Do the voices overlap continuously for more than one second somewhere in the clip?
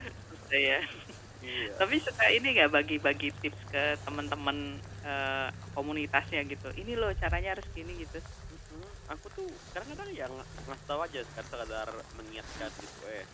No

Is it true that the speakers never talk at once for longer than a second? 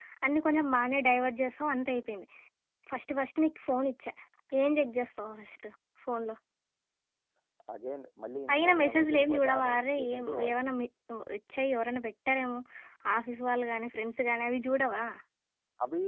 No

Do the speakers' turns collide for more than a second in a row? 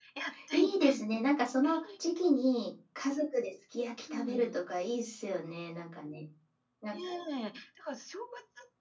No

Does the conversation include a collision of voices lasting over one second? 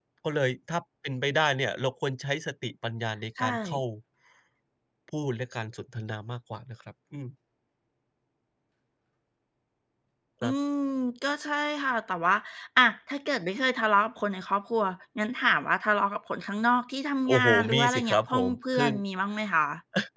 Yes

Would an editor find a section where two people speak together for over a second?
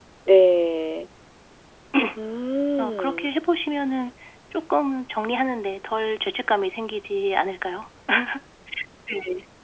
No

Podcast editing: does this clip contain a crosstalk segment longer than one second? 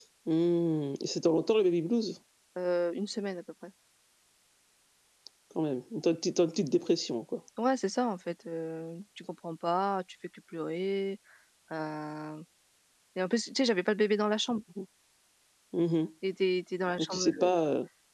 No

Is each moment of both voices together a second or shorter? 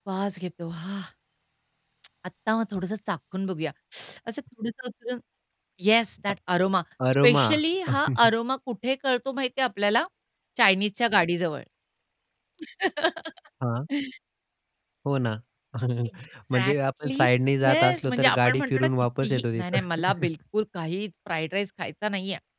No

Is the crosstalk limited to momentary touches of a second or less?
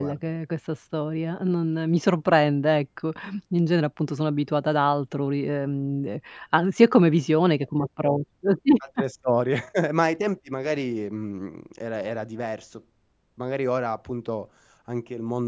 Yes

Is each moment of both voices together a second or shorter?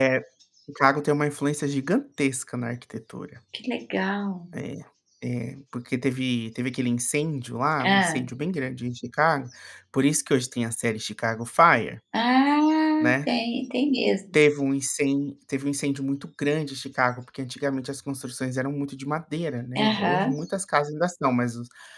Yes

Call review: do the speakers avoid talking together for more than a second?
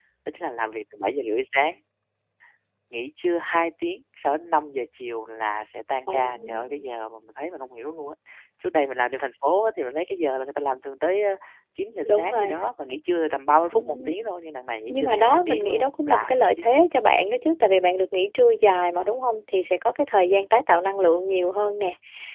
No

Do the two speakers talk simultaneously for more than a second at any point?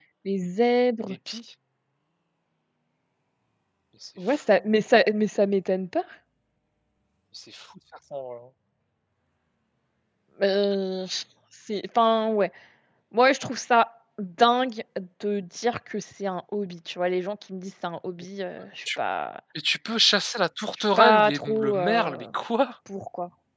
Yes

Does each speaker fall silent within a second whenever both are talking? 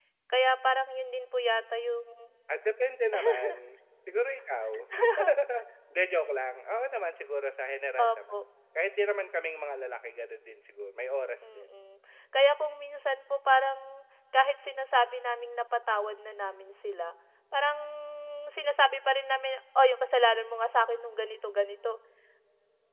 Yes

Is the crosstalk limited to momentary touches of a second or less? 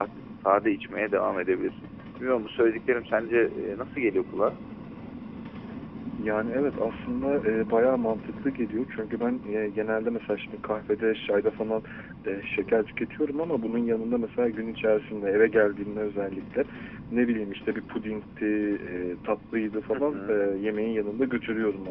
Yes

